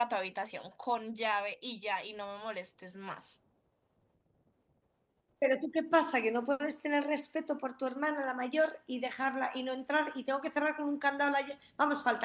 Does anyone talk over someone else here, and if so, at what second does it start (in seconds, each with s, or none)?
none